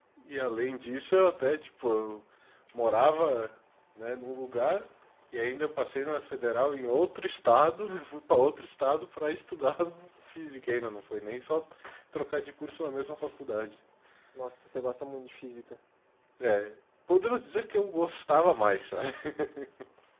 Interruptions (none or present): none